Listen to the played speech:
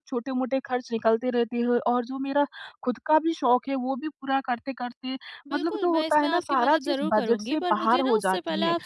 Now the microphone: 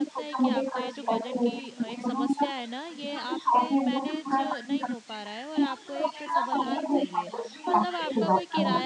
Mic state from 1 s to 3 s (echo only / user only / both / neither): both